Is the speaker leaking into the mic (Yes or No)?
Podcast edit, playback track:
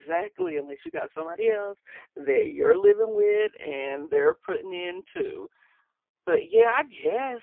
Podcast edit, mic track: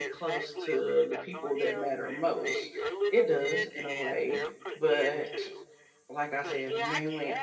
Yes